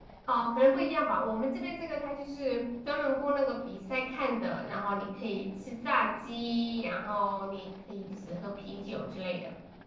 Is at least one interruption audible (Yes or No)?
No